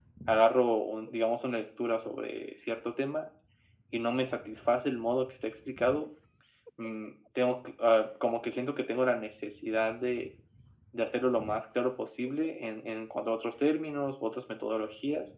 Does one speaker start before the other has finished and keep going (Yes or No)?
No